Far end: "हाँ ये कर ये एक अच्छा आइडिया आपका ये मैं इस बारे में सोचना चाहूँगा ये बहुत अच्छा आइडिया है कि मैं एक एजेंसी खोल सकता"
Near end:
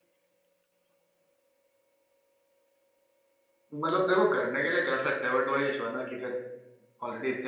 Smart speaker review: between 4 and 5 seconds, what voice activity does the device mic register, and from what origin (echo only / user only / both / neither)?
user only